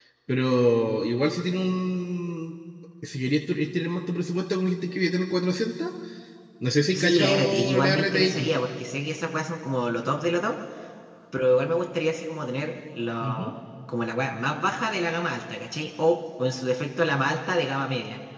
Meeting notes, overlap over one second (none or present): present